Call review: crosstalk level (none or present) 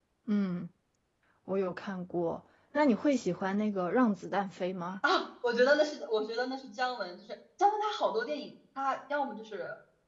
none